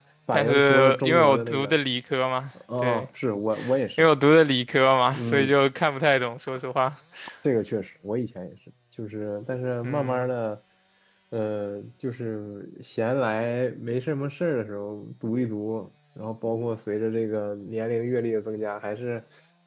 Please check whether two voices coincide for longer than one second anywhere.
Yes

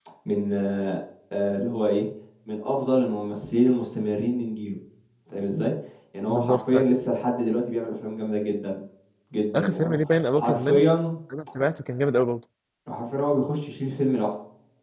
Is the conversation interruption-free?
No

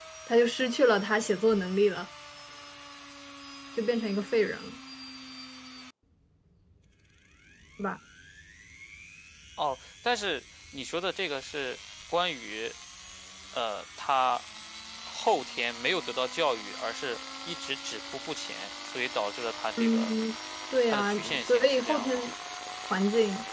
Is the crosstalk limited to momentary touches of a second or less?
No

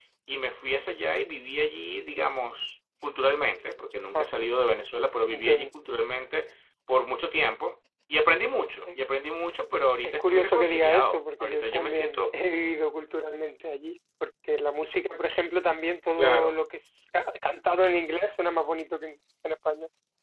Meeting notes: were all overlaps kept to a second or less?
No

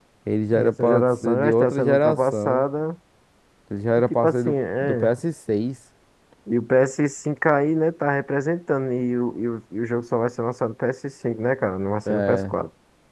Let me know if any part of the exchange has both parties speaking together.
Yes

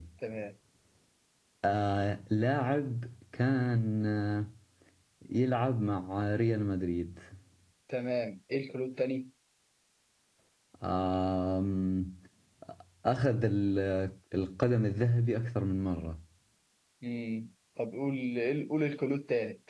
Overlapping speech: No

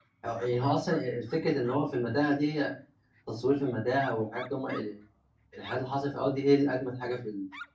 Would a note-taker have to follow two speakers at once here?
No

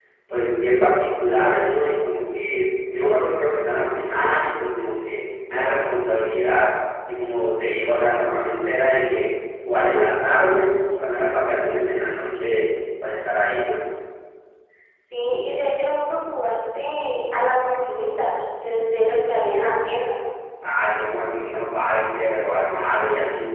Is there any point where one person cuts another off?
No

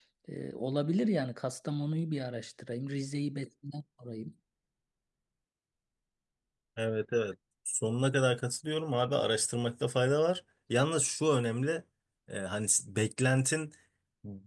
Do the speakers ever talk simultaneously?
No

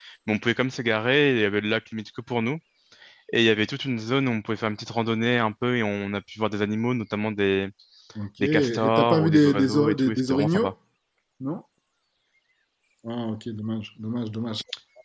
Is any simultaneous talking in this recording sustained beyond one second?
Yes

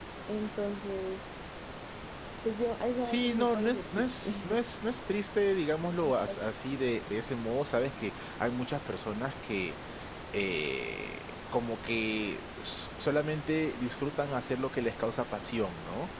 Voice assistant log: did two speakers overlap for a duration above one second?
Yes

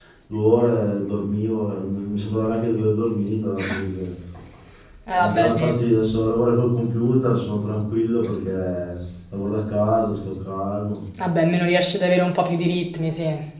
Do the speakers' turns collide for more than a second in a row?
No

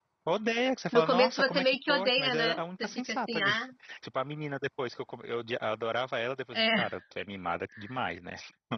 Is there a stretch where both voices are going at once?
Yes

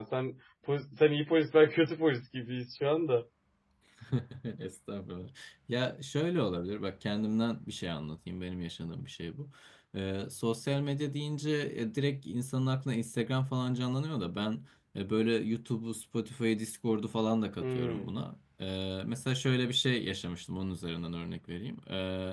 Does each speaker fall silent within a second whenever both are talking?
Yes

